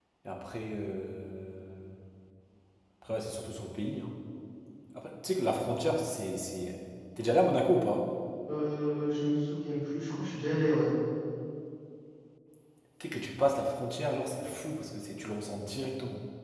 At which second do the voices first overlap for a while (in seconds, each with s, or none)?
none